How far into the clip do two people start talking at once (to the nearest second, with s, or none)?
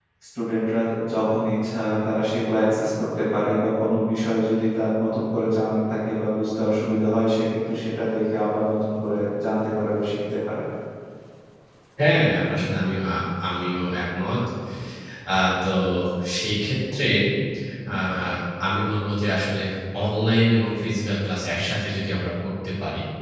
none